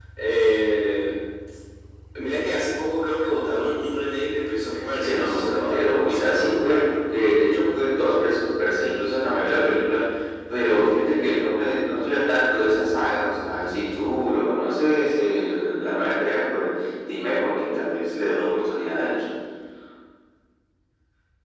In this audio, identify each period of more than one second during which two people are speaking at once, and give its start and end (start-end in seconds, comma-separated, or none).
4.7-6.9